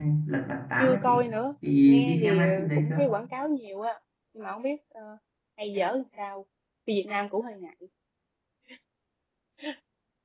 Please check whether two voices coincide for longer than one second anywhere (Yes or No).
Yes